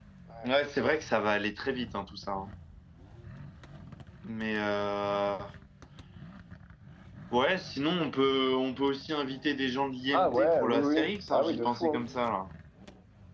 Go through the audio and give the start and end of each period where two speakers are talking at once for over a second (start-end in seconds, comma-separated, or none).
10.1-12.0